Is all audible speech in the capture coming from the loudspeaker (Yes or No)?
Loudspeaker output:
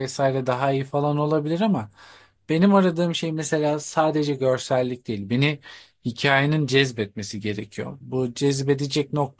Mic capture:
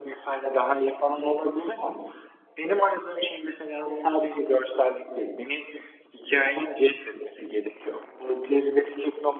Yes